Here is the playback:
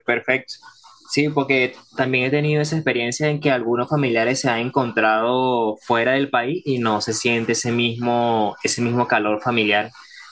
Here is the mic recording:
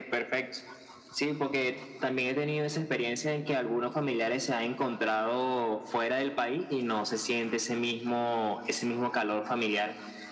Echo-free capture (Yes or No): No